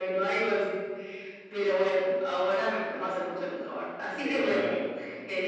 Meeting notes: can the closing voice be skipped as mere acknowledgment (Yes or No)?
Yes